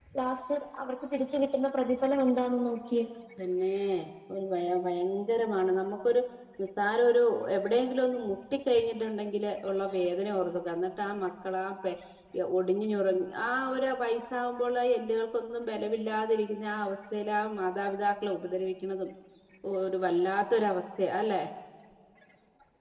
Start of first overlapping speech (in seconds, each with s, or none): none